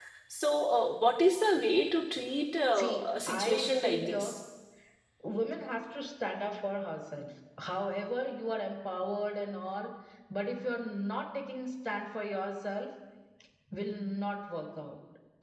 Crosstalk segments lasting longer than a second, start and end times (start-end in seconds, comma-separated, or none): 2.8-4.3